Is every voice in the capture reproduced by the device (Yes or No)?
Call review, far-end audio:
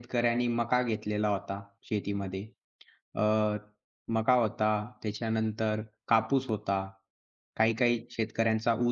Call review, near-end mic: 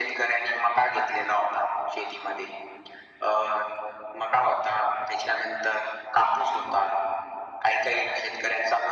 Yes